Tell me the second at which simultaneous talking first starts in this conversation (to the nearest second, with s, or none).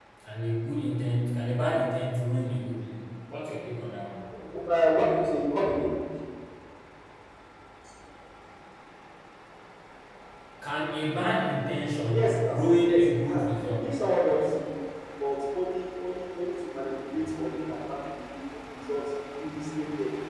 12 s